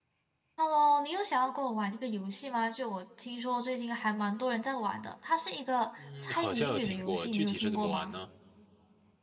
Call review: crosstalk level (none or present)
present